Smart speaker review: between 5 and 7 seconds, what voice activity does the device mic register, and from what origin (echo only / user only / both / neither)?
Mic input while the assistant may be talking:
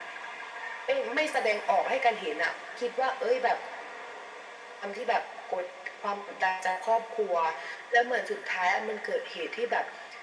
echo only